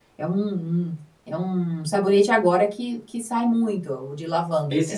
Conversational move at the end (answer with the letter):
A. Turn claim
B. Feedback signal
A